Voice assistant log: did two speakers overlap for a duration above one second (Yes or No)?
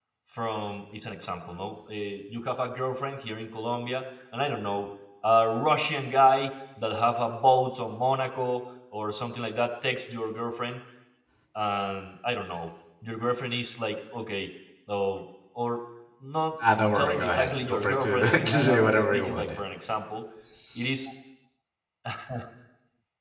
Yes